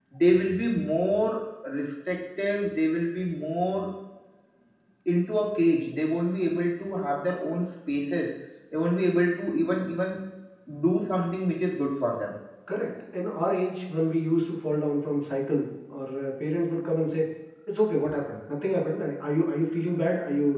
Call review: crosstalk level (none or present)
none